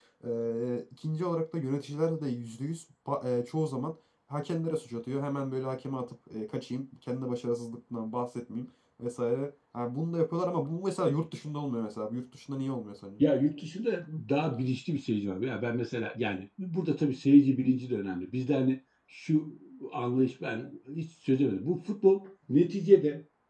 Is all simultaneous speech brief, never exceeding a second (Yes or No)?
Yes